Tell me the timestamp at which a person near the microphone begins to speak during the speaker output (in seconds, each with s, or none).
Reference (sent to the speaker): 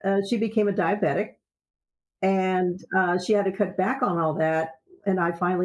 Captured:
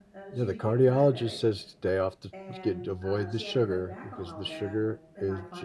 0.3 s